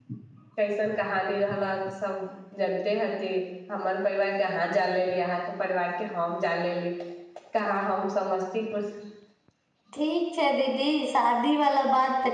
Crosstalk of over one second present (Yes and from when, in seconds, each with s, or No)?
No